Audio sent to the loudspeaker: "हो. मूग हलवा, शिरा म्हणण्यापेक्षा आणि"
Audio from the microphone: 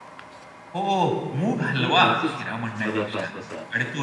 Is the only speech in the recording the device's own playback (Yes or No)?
No